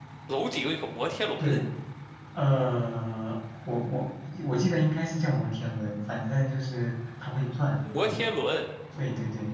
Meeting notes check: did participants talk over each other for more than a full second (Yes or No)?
No